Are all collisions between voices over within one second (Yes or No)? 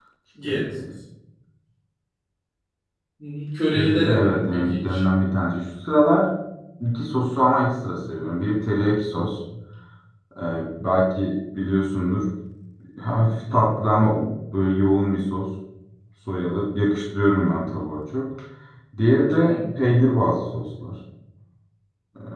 No